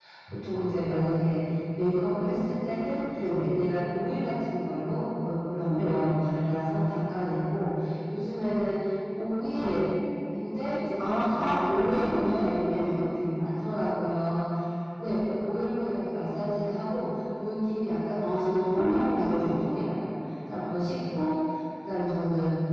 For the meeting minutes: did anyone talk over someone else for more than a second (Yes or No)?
Yes